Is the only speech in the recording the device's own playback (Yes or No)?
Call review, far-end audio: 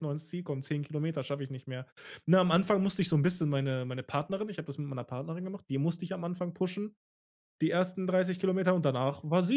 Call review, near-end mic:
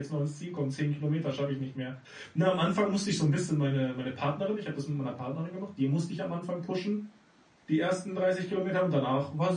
Yes